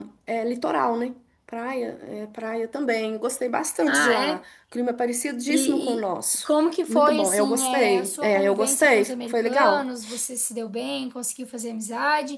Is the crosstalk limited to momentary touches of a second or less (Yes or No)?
No